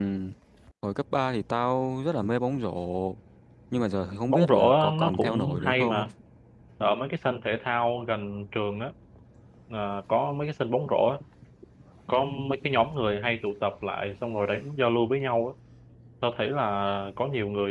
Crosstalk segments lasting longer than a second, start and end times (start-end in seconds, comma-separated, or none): 4.3-6.0